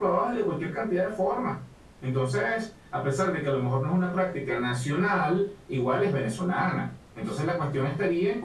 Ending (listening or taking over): listening